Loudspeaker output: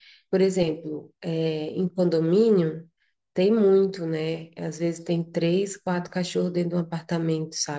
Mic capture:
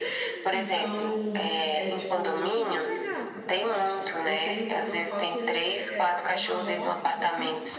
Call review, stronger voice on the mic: echo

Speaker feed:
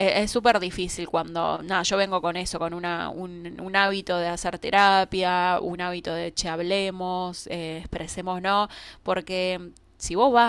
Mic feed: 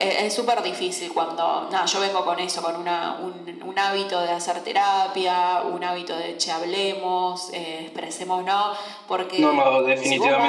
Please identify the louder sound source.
user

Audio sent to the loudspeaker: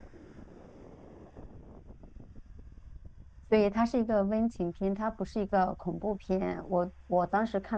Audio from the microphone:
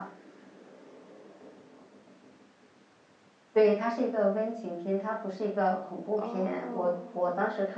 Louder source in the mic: echo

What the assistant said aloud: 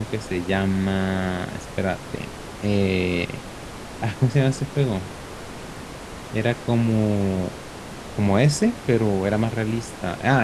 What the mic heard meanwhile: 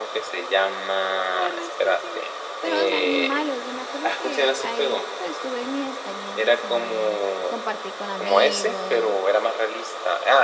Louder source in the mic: echo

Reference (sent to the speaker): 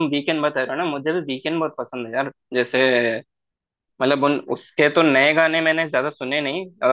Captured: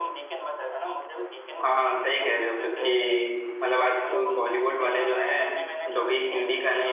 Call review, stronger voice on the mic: user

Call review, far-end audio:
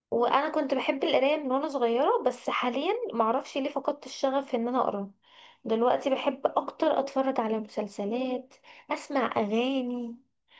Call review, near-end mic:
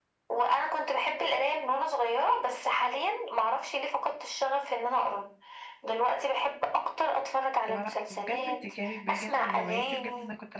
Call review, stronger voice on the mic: echo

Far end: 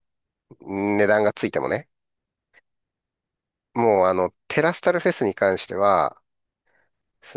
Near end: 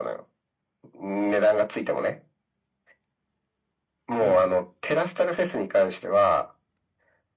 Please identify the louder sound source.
echo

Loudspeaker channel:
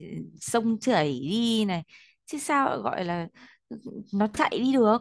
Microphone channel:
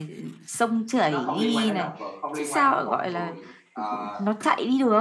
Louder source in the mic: echo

